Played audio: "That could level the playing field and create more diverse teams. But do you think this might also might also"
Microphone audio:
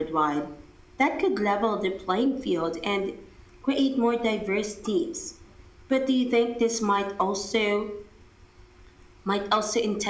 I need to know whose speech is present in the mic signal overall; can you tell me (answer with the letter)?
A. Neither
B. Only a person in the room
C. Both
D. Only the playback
D